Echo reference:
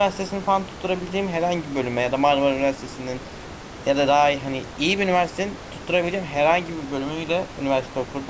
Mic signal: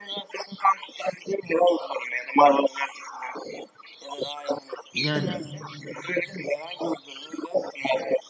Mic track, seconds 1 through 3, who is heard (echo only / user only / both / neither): echo only